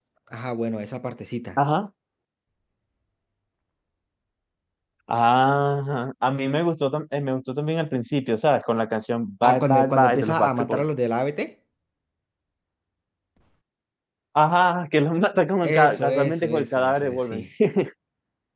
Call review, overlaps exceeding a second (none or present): present